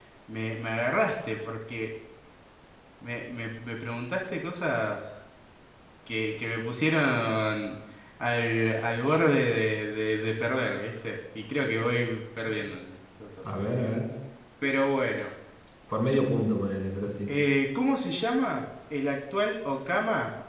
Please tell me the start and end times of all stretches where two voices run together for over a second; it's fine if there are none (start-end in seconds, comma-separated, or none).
none